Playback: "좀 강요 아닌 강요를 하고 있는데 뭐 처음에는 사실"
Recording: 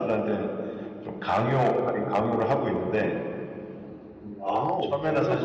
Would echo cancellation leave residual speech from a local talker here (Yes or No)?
Yes